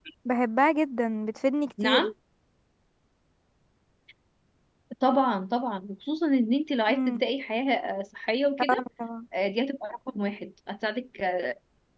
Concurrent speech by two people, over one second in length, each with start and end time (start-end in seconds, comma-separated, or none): none